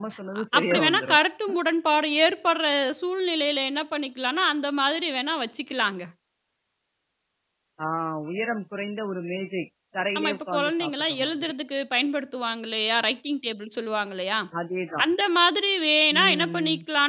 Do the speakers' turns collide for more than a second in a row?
Yes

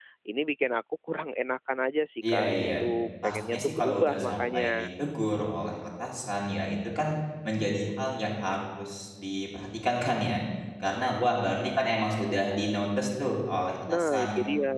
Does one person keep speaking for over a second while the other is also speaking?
Yes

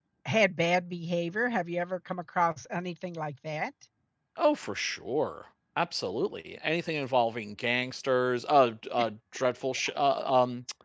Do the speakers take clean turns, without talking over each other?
Yes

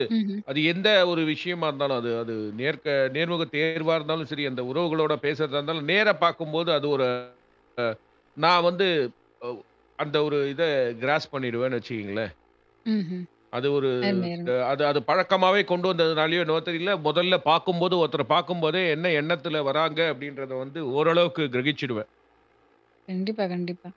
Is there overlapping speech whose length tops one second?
No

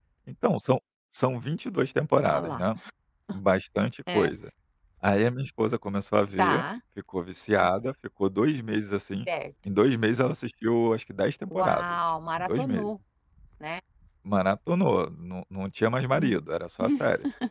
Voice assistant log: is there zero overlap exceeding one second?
Yes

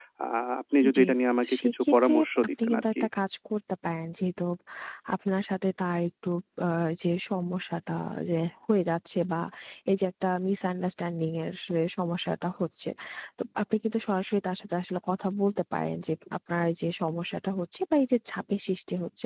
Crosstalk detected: Yes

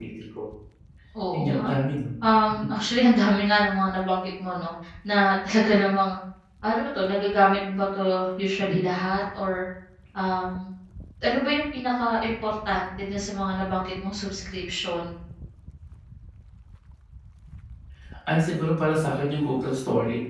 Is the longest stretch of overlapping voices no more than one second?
Yes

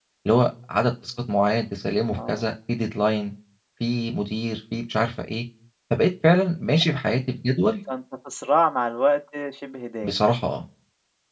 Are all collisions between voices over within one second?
Yes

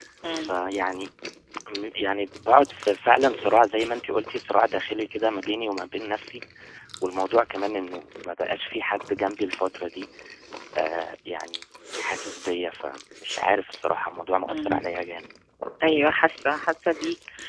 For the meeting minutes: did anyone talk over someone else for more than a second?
No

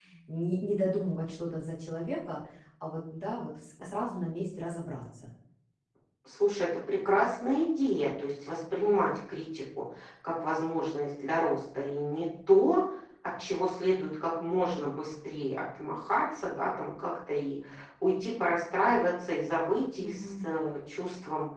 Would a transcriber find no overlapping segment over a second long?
Yes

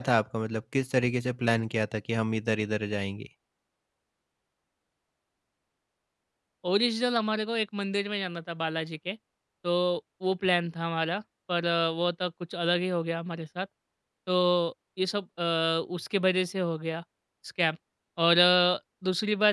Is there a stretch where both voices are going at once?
No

